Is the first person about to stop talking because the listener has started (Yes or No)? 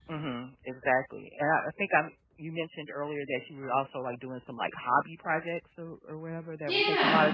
Yes